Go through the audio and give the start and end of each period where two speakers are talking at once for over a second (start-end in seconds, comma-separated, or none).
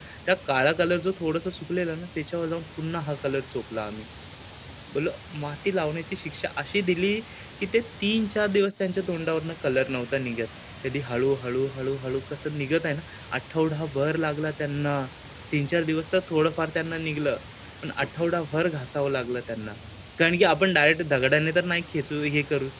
none